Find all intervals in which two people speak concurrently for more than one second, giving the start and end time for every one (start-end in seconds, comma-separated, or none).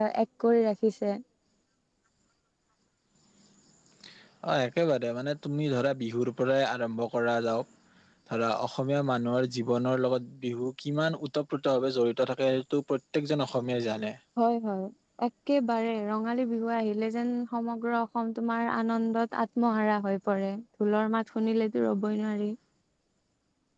none